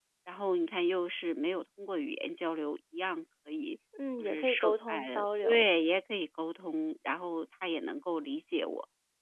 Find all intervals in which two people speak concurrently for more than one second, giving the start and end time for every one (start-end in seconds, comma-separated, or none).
4.2-5.7